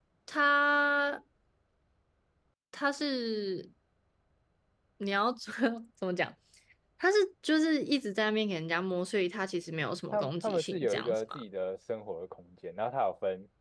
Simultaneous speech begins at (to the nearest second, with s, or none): 10 s